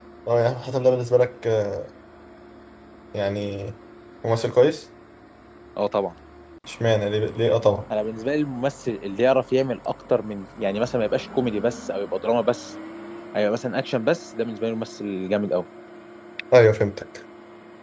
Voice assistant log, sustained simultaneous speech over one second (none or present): none